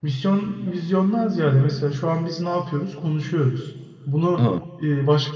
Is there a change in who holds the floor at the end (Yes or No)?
No